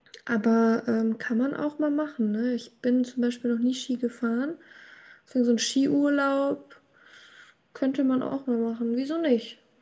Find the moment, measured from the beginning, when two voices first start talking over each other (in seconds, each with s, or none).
none